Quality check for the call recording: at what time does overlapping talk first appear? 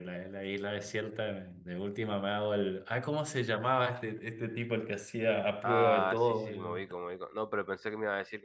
5.6 s

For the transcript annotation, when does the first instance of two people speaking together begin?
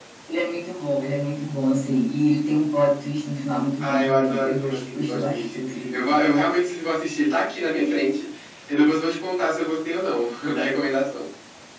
3.8 s

